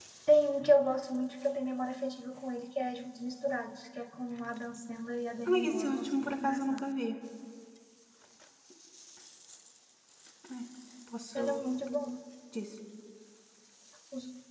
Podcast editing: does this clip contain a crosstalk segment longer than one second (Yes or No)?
Yes